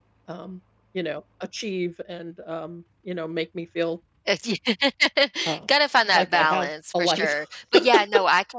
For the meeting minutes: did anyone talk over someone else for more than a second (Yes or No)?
Yes